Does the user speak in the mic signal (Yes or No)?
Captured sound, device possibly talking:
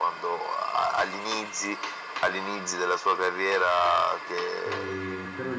Yes